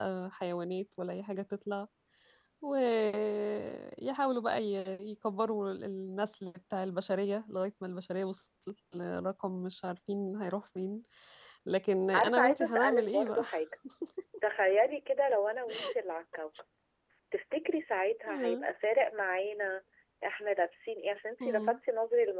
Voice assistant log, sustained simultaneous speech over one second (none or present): present